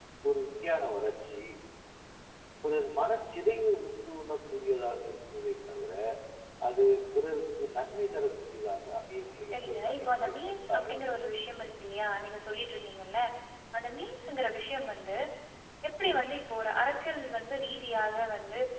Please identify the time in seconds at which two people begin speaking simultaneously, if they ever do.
9.5 s

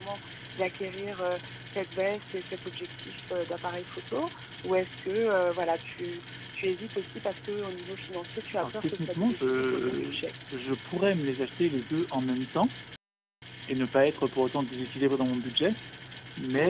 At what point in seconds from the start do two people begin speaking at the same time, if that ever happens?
8.5 s

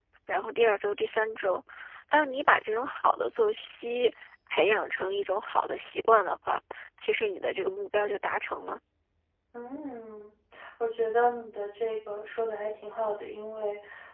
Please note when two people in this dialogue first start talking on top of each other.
none

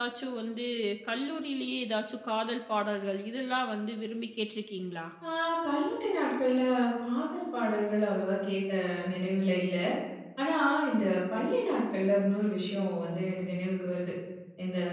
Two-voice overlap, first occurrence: none

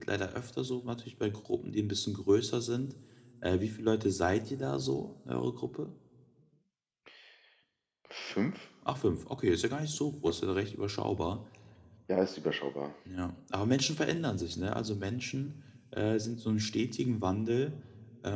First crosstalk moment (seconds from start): none

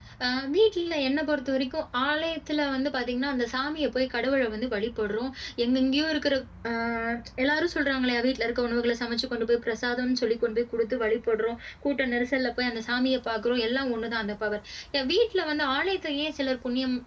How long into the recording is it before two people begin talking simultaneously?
none

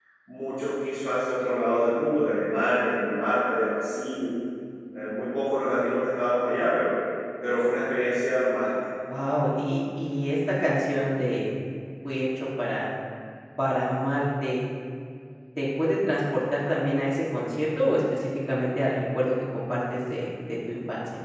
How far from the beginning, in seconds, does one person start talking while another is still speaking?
none

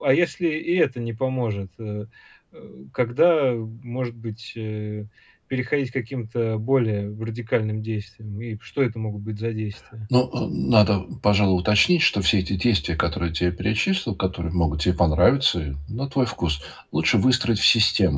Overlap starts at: none

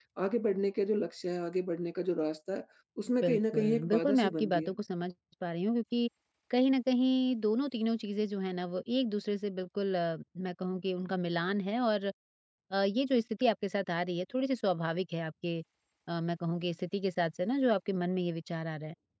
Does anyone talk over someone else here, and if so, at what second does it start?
3.2 s

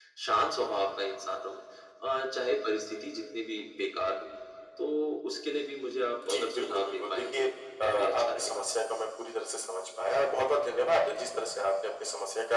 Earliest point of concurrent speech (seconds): 6.2 s

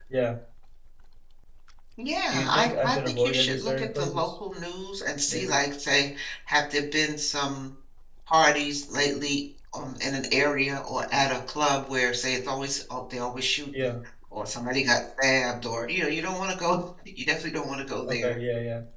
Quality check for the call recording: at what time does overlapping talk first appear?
2.3 s

